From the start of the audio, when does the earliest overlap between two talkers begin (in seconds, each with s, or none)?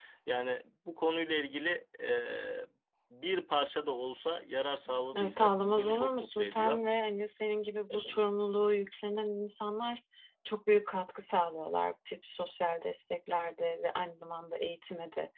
5.1 s